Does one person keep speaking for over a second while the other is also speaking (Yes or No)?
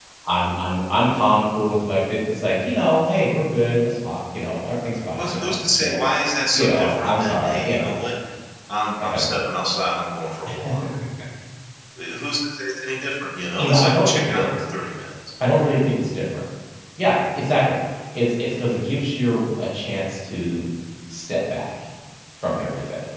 Yes